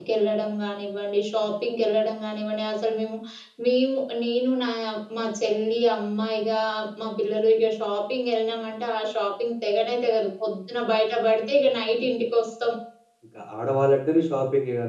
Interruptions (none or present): none